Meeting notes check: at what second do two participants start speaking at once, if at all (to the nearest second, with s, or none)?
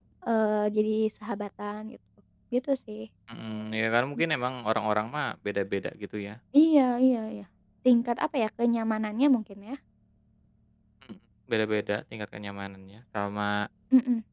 none